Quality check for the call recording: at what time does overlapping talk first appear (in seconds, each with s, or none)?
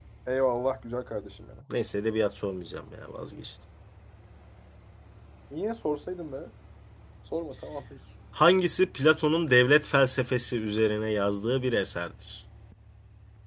none